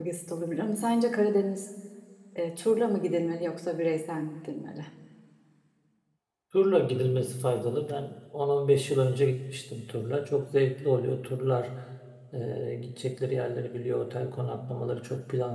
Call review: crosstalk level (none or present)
none